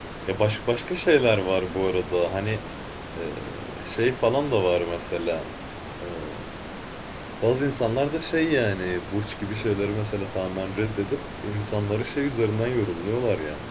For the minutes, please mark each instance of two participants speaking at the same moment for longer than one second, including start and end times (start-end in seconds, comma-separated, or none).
none